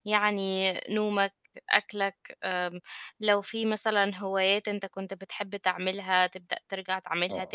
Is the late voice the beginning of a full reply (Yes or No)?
No